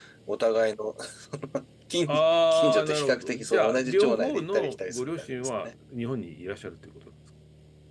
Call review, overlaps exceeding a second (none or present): present